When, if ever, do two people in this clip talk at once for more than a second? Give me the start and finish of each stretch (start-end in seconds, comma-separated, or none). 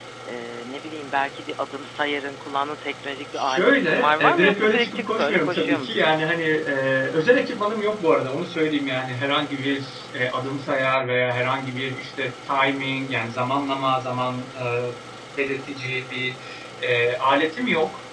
3.3-6.1